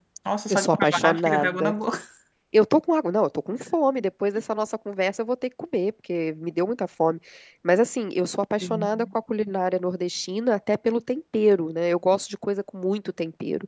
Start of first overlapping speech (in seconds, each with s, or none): 0.5 s